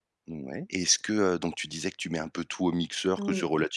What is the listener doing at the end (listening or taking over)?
listening